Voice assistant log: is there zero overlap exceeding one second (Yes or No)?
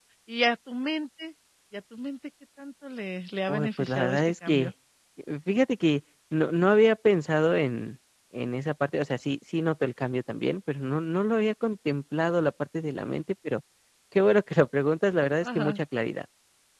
No